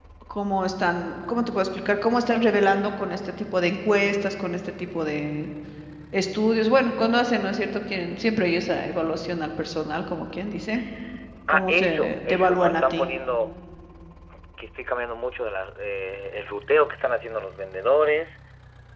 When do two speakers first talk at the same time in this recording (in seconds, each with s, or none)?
11.5 s